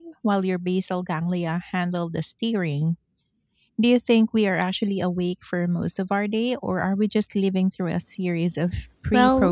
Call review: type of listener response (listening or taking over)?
taking over